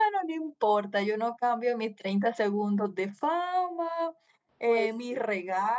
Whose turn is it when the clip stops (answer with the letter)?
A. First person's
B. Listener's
A